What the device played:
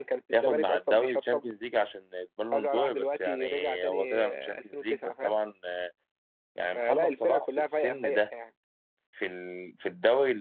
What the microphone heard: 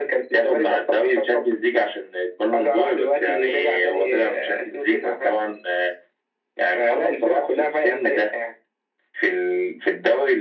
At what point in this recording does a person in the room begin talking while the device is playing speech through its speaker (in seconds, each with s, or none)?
none